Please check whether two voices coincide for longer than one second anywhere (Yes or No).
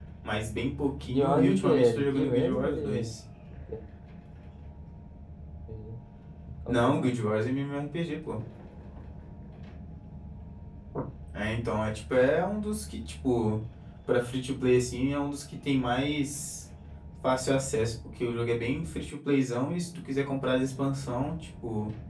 Yes